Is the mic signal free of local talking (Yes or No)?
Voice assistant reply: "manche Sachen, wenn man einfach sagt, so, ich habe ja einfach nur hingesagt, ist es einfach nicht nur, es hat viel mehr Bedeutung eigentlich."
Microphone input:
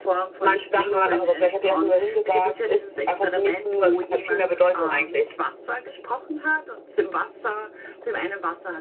No